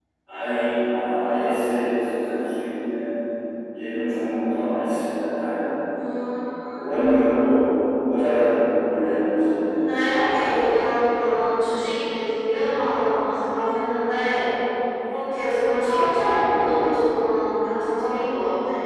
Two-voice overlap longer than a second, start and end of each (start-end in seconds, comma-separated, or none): none